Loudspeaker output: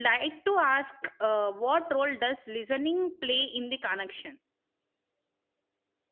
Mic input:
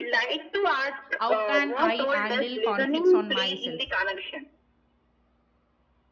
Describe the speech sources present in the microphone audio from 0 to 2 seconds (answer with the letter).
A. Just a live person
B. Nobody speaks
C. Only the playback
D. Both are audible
D